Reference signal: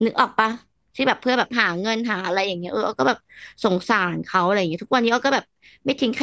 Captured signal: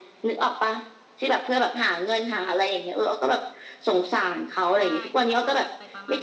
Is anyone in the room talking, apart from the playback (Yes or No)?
Yes